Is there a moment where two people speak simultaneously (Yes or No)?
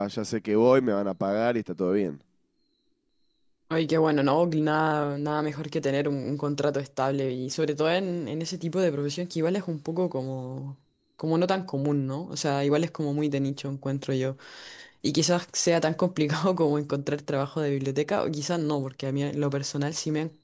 No